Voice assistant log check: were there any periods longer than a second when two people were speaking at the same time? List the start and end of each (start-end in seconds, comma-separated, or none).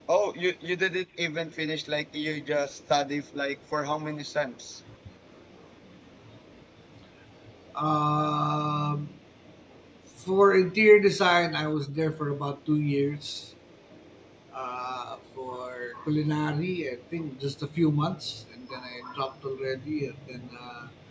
none